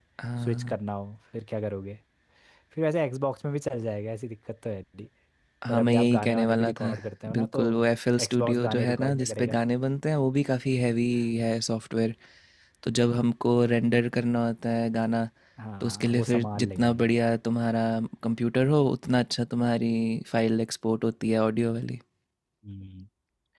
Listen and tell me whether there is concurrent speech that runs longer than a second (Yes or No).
Yes